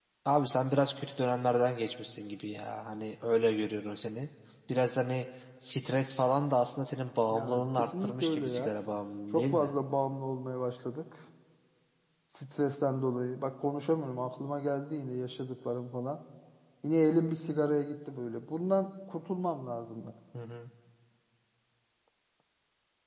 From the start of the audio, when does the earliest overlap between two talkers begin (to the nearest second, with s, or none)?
7 s